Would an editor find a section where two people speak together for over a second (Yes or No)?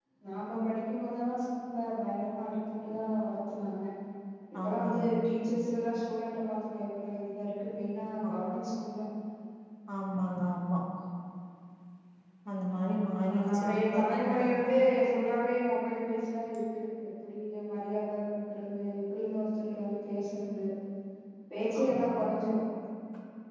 Yes